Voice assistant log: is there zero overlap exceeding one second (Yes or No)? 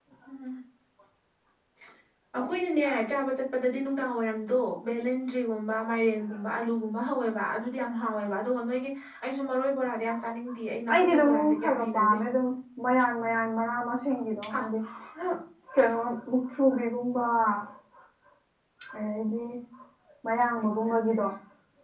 No